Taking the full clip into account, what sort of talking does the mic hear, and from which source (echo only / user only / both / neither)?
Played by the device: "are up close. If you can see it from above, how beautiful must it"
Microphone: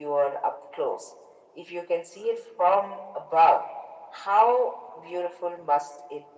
echo only